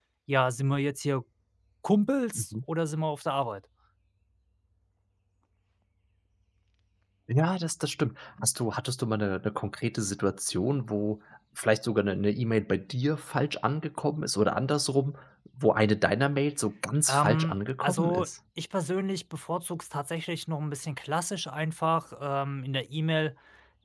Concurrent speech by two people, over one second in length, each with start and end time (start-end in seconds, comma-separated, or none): 17.1-18.3